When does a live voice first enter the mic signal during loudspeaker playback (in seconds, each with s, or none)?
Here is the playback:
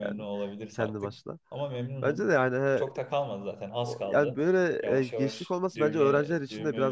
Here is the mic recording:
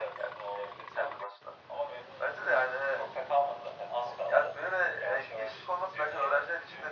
none